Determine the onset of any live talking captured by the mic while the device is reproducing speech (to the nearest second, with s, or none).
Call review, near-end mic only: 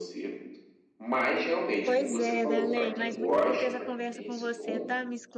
2 s